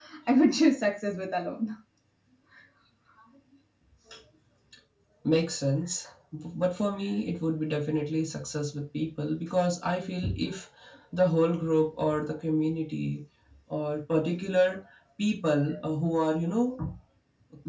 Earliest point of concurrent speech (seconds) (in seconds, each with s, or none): none